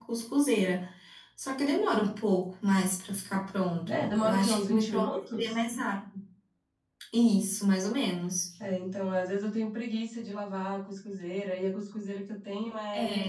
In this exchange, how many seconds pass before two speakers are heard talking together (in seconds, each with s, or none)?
3.9 s